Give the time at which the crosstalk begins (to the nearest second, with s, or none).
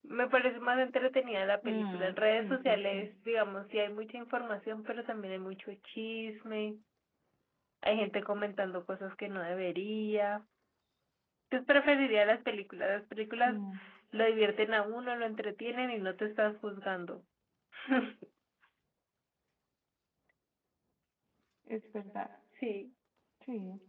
2 s